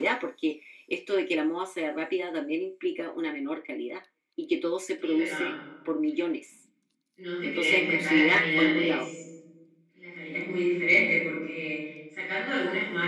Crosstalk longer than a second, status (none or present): present